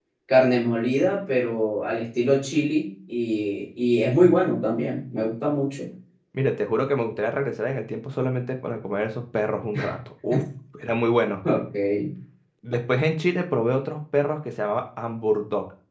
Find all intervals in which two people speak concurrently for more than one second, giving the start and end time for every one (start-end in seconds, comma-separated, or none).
none